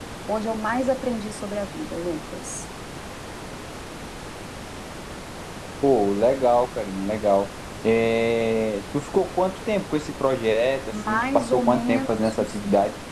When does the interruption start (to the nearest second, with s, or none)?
11 s